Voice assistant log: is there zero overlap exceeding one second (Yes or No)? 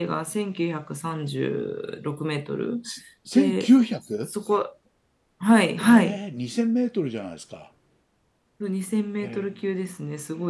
Yes